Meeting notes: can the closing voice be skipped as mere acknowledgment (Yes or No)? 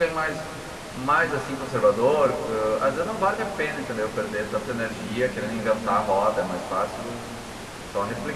No